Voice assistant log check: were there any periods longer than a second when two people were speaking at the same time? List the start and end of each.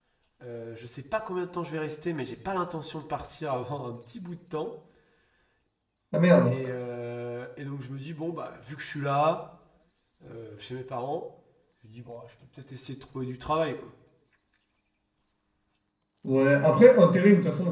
none

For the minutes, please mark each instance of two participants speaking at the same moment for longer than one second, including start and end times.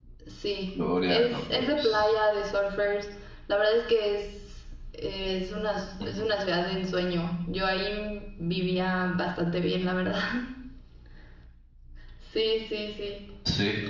0.7-2.1

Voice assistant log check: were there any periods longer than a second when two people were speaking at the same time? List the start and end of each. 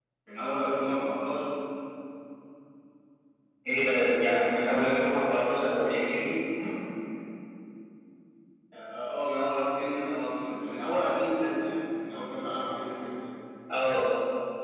none

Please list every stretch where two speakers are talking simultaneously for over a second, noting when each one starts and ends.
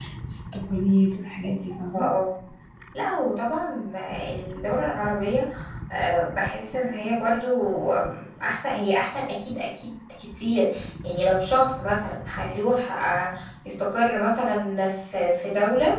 none

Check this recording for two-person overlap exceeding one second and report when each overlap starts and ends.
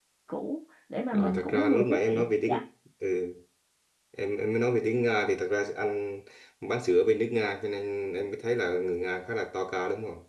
1.1-2.6

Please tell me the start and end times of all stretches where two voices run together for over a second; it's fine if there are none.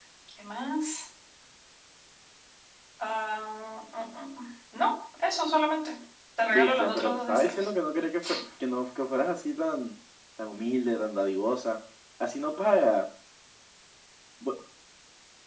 6.5-7.7

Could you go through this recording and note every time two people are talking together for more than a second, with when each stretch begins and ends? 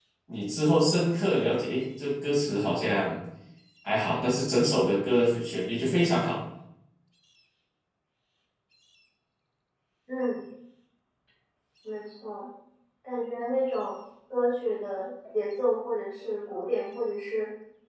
none

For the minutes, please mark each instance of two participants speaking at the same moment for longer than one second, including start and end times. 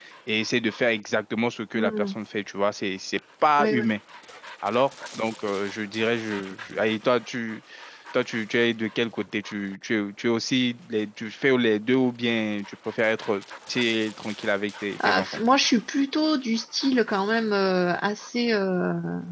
none

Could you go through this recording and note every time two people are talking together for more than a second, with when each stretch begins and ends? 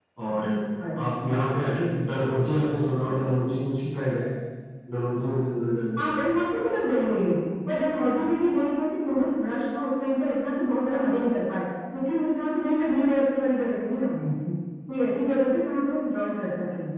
none

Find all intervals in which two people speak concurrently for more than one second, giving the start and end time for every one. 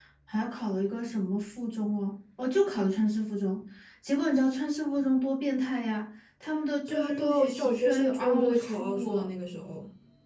6.9-9.3

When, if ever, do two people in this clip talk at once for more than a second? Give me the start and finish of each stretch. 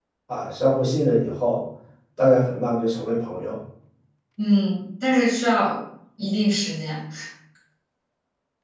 none

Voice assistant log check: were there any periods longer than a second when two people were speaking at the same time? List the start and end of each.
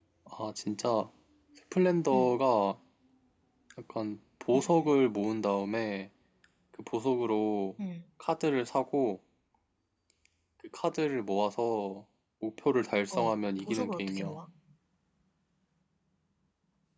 13.1-14.4

